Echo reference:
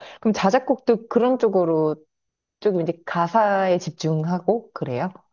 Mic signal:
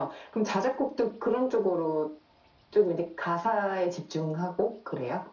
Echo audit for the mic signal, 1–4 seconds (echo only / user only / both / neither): echo only